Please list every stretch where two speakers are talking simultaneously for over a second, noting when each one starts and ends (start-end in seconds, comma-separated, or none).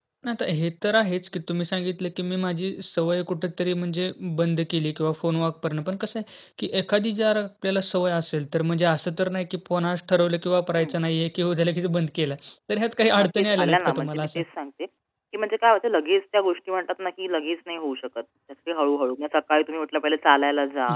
13.2-14.4